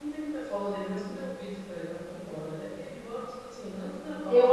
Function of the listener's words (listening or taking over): taking over